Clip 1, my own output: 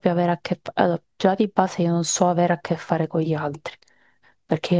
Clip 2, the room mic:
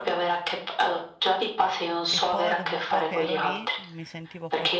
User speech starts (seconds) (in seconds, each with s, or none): 2.1 s